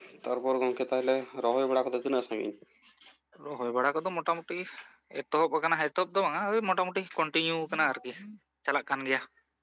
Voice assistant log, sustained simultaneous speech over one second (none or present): none